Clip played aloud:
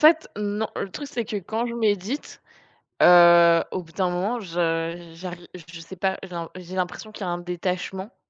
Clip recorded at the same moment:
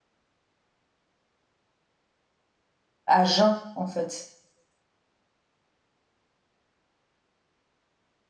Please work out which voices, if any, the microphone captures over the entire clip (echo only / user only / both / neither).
user only